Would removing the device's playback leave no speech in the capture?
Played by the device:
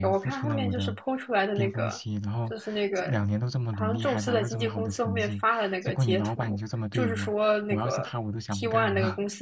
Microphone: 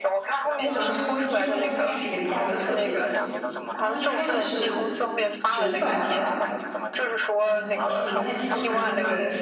No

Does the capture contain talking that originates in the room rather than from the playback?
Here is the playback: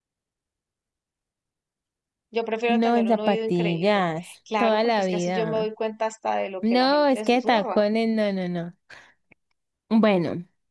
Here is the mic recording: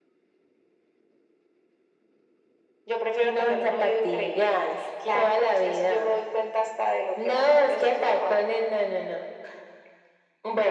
No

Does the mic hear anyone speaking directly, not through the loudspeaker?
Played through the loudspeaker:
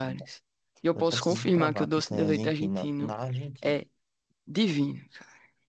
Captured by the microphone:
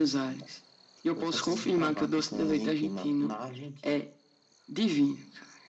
No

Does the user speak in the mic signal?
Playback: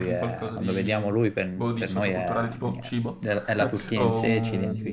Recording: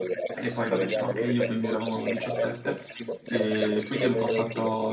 Yes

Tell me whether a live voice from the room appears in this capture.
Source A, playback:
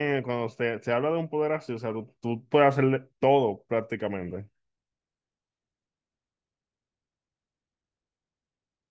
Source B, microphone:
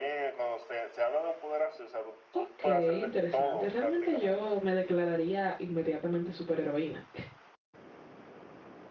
Yes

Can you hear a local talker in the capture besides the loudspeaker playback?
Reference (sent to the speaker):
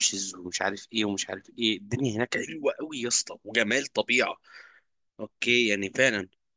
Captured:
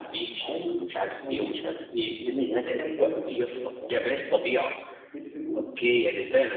Yes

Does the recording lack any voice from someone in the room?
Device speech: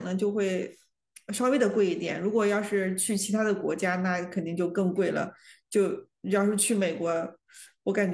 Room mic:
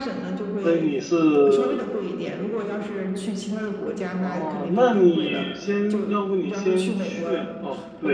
No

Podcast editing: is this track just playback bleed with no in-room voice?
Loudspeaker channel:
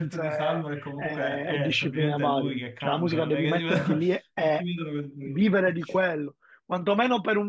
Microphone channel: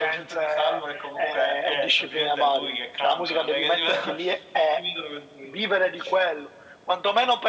Yes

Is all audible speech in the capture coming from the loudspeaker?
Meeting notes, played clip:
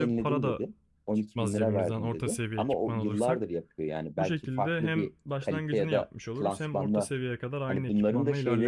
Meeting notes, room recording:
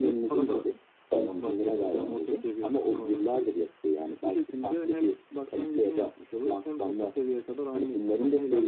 No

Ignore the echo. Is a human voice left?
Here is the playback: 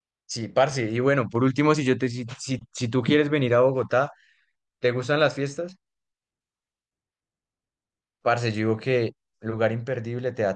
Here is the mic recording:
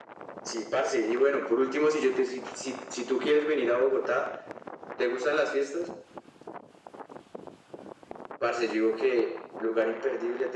No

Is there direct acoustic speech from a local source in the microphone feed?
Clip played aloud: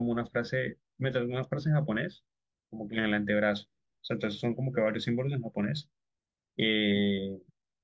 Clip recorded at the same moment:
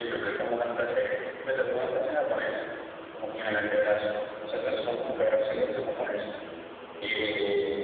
No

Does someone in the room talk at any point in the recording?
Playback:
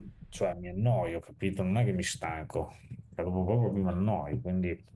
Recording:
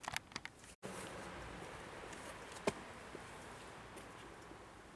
No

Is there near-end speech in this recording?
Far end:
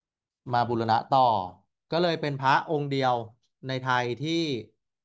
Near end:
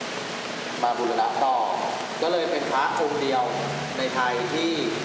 No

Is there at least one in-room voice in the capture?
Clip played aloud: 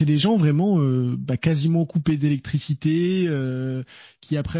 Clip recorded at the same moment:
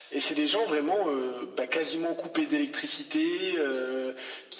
No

